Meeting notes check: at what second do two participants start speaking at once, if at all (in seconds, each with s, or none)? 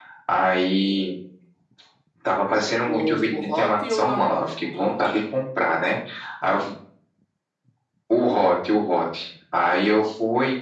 2.9 s